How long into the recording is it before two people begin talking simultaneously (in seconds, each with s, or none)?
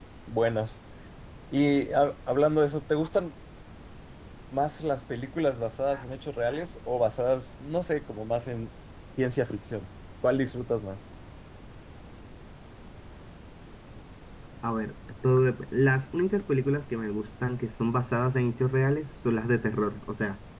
none